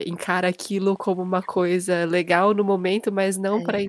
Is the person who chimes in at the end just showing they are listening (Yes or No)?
Yes